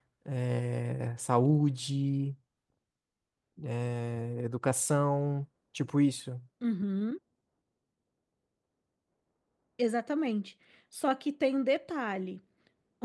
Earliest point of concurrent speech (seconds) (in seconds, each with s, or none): none